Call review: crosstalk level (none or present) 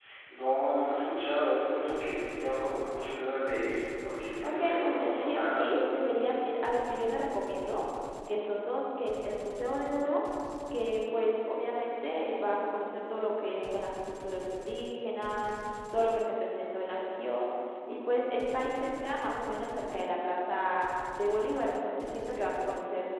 present